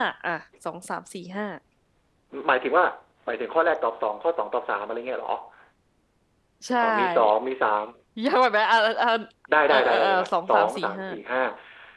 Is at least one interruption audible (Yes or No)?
Yes